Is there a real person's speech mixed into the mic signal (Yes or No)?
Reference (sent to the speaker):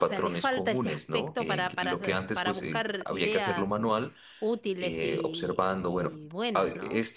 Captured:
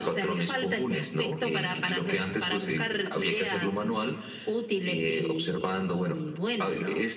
No